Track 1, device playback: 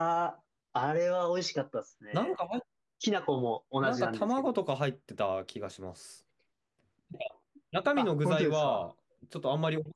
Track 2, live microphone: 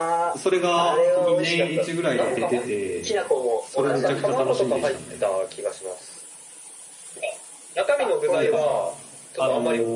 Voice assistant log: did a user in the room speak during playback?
Yes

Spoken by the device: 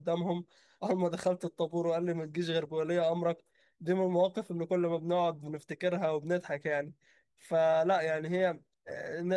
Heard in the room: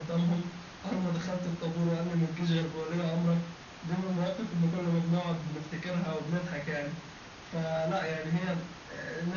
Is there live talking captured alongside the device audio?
No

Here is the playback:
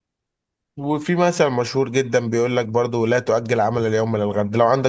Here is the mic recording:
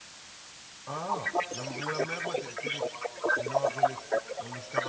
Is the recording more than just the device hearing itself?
Yes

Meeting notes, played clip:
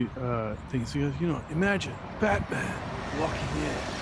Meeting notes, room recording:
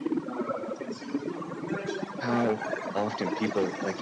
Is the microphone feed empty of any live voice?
No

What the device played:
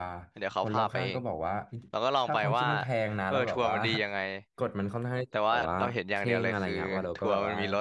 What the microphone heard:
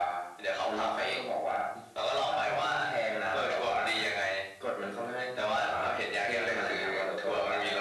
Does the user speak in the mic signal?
No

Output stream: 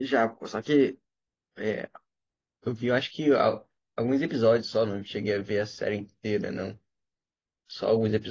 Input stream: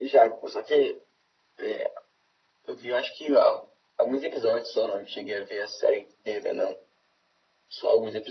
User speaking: No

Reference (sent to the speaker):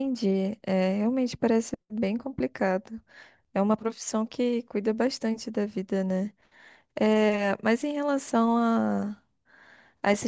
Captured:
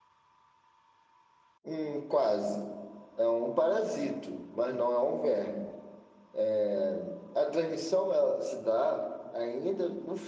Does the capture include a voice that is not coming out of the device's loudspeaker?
Yes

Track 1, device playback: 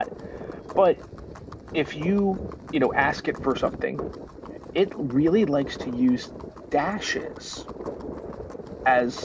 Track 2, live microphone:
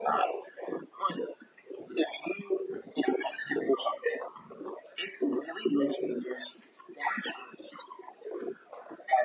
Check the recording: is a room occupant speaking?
No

